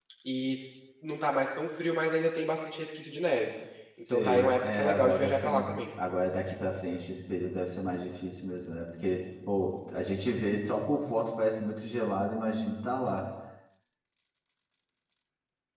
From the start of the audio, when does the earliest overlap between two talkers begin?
4.1 s

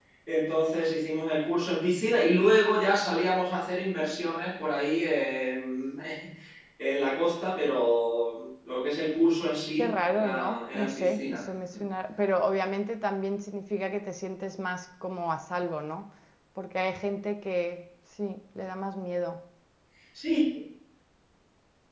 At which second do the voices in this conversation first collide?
9.8 s

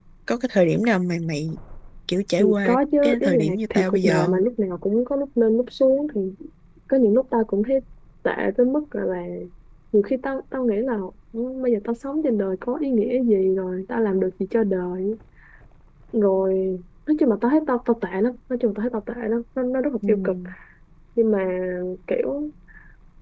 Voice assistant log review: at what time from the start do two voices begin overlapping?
2.4 s

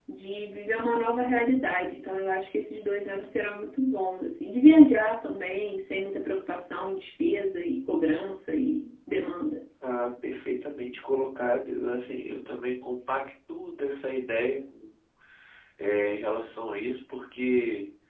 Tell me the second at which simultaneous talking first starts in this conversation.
none

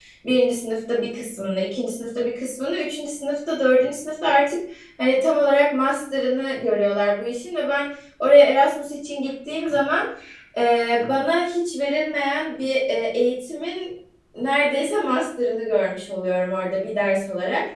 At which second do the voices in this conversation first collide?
none

